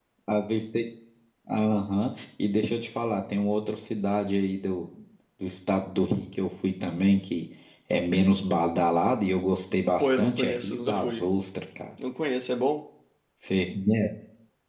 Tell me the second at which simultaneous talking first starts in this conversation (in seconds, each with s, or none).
10.0 s